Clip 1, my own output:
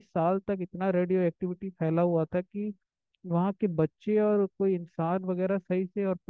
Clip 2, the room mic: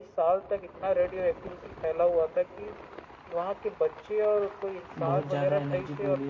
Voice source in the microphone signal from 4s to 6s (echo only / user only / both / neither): both